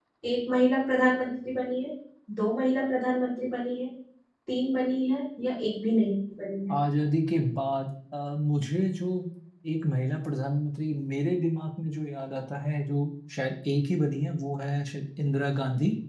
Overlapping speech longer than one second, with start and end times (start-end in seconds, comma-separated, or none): none